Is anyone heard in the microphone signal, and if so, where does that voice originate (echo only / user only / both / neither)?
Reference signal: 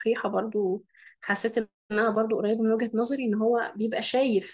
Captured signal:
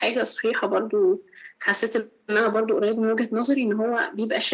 echo only